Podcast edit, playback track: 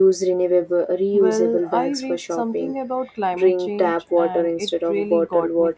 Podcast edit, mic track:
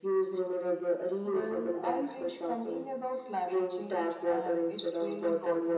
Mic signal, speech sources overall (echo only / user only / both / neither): echo only